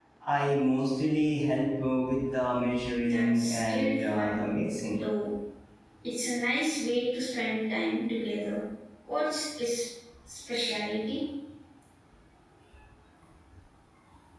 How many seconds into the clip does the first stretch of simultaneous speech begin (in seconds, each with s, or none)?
3.0 s